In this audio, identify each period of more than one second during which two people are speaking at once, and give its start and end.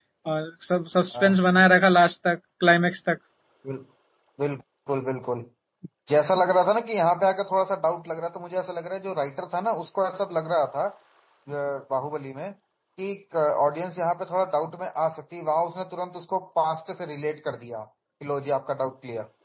none

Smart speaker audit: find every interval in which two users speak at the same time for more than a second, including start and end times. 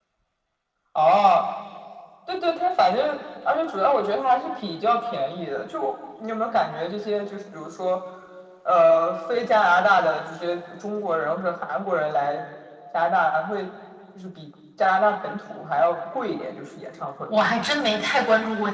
none

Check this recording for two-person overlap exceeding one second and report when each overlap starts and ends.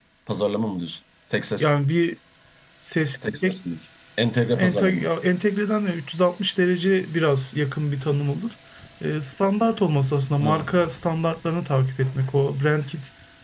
none

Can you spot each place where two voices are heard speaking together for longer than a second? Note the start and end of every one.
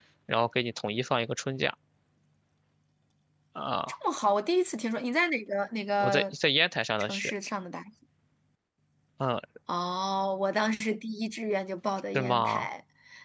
none

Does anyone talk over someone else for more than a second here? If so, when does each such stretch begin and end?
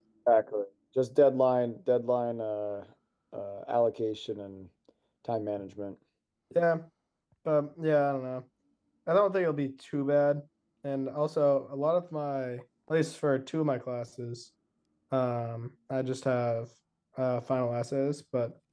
none

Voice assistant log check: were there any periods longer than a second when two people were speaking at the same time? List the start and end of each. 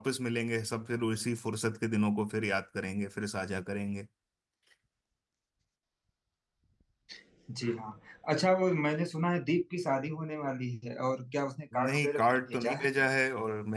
11.8-13.0

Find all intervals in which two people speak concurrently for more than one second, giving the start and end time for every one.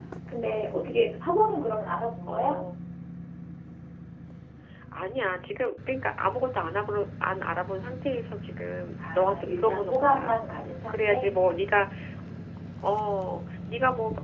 9.1-10.3

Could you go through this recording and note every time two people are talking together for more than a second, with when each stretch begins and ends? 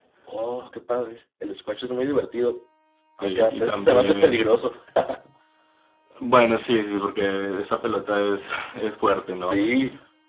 3.2-4.5

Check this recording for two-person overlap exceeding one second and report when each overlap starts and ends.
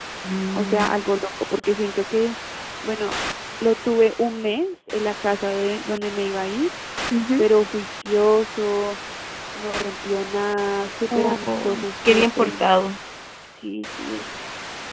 11.1-12.6

